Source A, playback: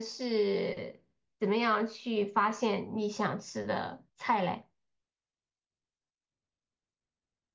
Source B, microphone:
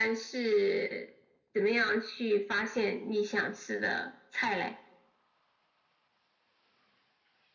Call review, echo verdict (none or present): present